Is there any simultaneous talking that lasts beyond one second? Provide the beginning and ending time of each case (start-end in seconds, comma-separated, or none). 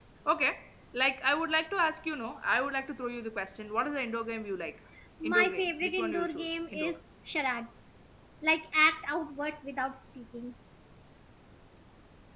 5.2-7.0